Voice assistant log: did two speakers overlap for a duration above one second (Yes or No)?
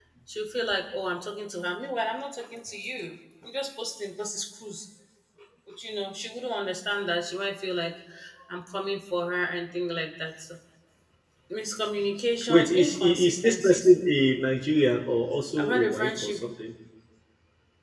Yes